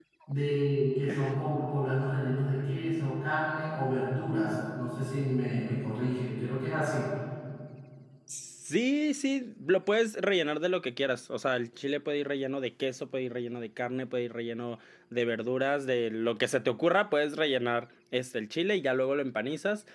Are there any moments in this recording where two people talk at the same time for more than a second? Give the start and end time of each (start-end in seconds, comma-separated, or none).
none